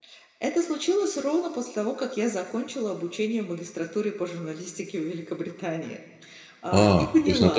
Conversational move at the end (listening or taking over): taking over